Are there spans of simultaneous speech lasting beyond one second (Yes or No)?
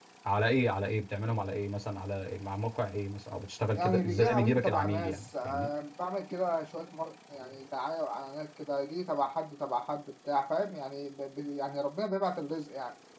Yes